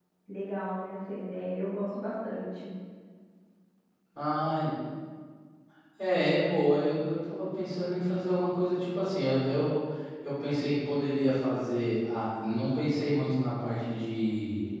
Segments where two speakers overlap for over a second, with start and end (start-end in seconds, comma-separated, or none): none